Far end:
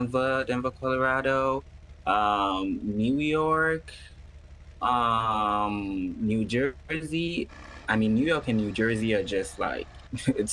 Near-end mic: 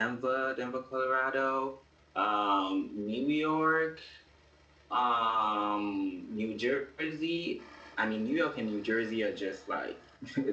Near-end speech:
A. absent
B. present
A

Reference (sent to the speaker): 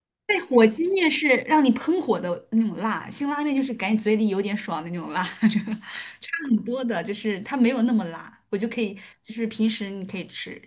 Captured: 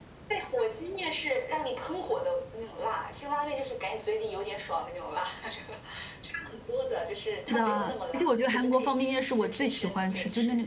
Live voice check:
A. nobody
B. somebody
B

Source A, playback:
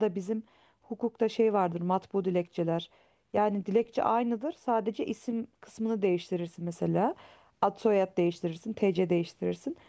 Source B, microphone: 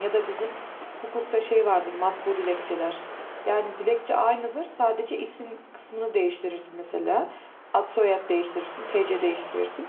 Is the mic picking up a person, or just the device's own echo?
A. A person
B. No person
B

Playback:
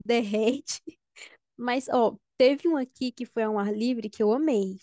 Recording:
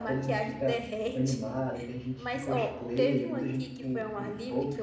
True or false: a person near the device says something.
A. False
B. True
B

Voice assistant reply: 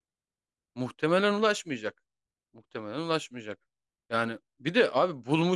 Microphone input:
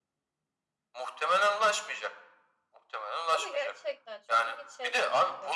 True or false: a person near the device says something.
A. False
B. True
B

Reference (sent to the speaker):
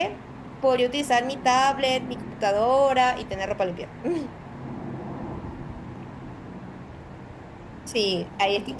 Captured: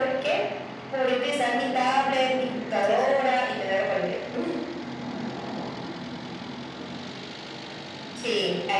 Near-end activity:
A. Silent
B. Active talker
B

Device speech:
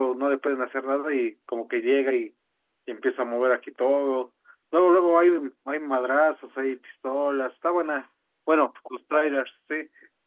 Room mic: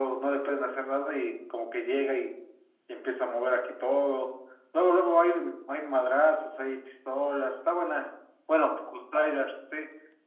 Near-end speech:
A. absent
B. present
A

